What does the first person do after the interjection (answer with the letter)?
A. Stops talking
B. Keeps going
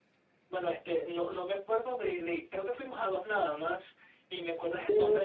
B